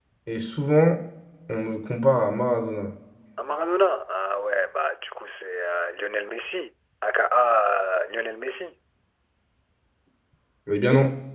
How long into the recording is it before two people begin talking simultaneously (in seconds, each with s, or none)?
none